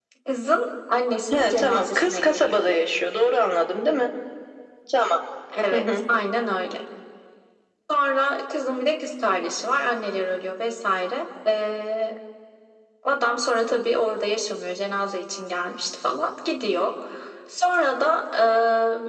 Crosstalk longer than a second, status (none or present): present